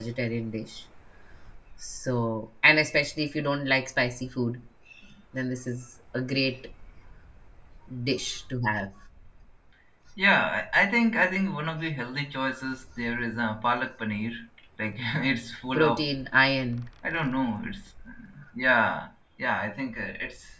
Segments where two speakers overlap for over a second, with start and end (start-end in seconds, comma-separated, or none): none